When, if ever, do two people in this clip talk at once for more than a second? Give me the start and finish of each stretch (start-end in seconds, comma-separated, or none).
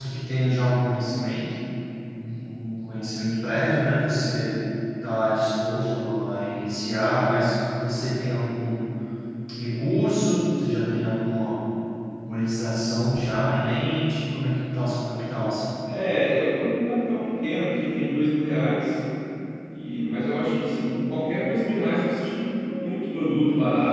none